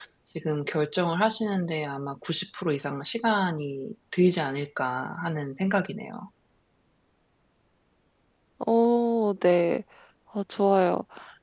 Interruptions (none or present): none